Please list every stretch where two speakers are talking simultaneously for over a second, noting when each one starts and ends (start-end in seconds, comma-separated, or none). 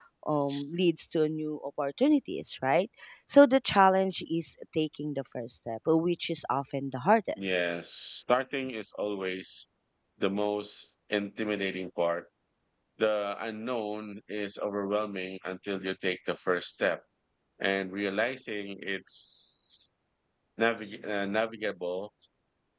none